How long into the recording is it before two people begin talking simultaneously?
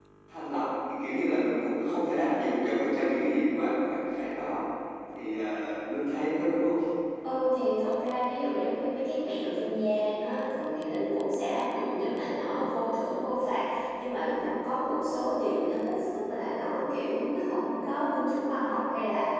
none

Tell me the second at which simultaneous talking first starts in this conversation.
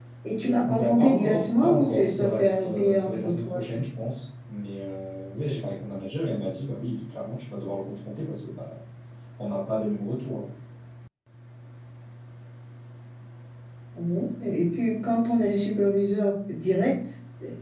1 s

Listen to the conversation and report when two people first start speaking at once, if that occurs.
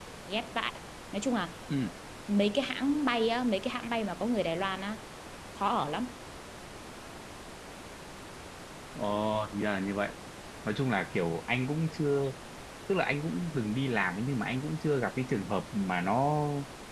none

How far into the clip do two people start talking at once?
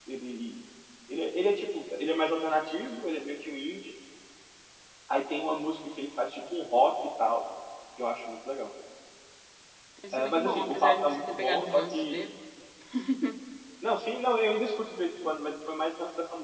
10 s

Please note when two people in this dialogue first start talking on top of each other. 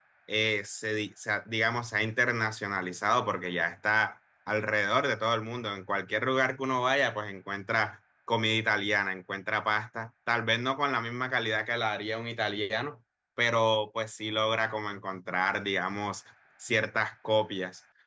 none

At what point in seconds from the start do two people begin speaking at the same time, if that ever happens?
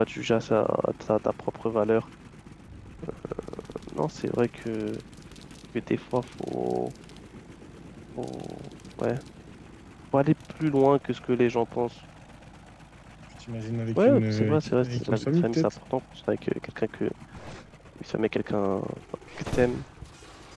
14 s

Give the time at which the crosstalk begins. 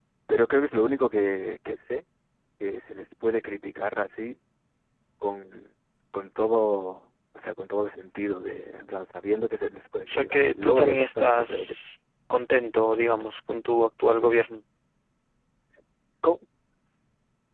10 s

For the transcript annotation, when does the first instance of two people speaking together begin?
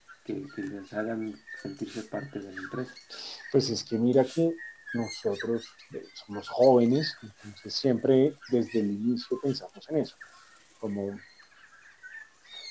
none

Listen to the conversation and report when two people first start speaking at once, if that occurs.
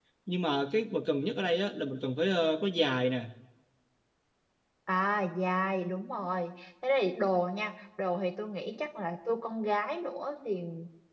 none

